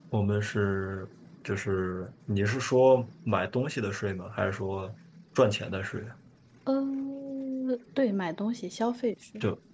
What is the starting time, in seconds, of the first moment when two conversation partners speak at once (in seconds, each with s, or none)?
none